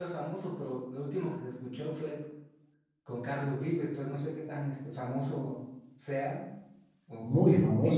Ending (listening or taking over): taking over